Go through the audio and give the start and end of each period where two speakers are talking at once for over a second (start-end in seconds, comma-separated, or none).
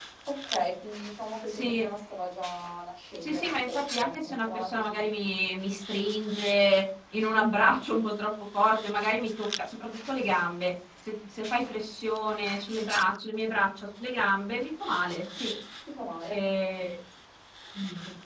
3.2-5.0